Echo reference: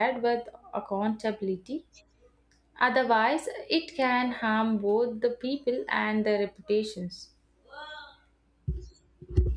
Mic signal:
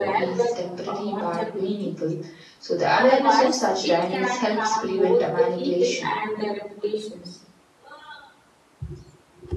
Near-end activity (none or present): present